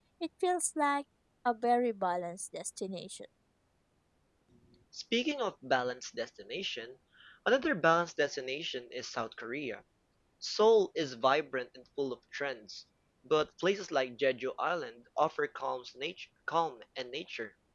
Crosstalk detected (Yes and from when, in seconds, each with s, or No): No